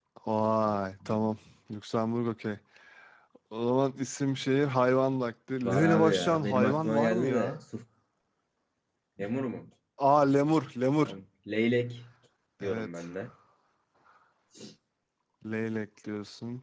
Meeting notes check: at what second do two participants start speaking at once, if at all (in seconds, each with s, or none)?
5.6 s